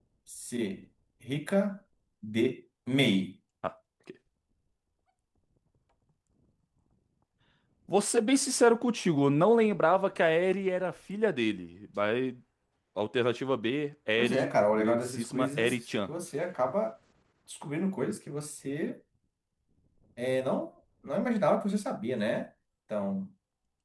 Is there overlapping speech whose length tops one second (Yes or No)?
Yes